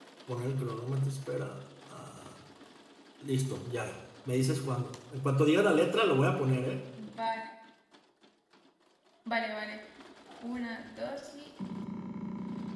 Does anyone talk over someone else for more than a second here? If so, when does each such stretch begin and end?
none

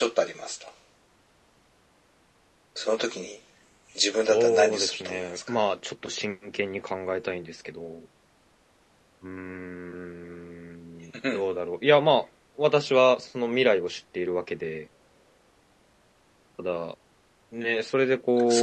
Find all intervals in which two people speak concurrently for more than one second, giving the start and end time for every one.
4.2-5.5

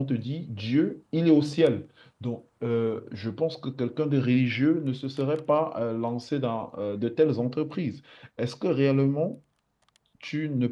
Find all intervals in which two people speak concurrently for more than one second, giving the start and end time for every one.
none

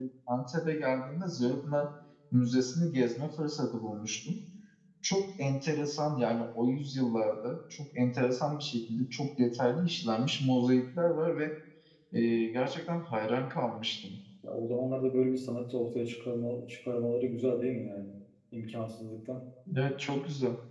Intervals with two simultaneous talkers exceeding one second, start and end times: none

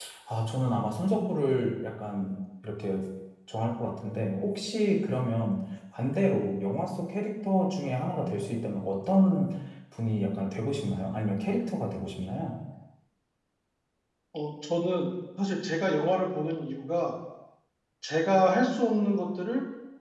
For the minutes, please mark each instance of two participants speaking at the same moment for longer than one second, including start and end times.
none

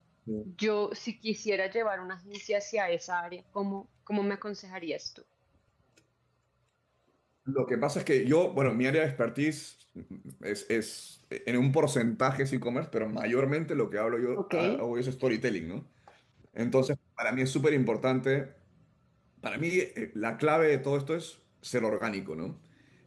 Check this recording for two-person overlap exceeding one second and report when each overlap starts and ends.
none

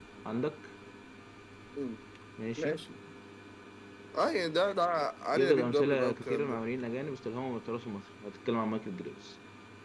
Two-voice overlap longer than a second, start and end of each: 5.3-6.6

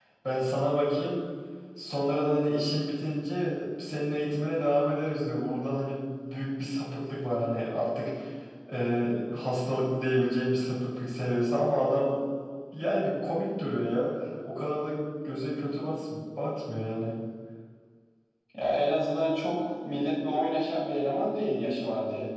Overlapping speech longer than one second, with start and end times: none

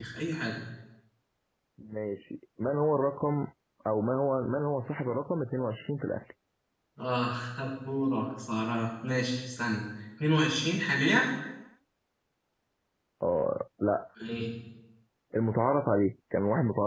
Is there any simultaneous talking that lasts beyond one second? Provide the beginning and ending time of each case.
none

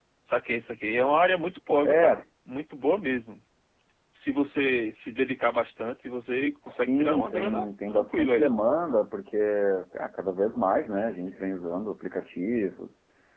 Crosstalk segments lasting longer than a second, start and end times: 6.9-8.5

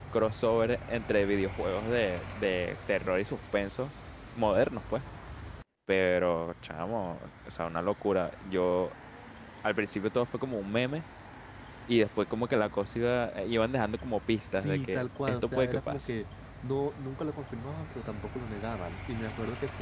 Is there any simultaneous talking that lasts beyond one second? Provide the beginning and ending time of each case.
14.5-16.1

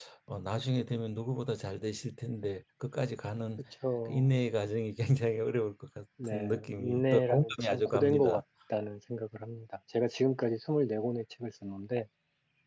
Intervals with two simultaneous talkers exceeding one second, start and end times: 6.2-8.3

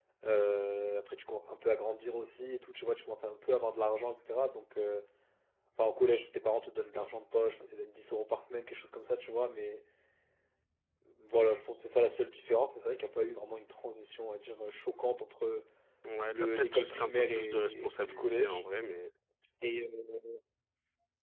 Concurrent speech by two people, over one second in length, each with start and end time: 16.3-18.6

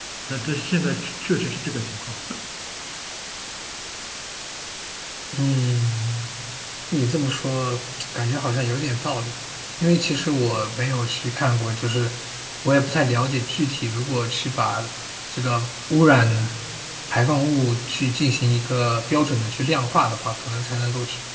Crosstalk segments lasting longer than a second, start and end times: none

